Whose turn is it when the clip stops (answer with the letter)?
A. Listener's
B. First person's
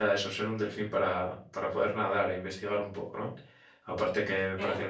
B